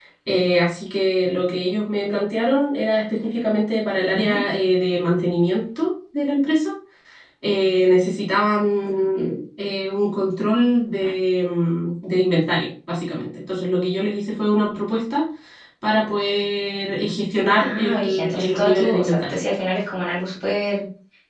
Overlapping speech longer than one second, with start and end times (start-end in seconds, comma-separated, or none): 17.5-19.4